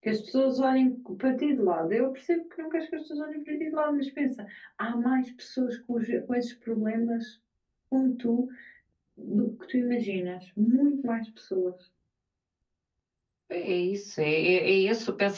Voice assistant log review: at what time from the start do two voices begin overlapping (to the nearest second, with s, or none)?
none